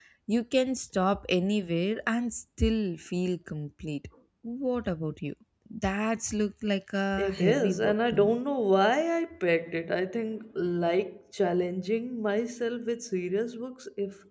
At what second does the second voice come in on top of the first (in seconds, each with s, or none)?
7.1 s